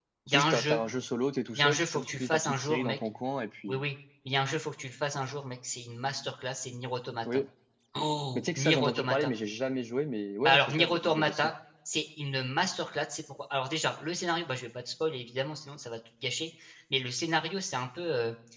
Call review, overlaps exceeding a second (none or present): present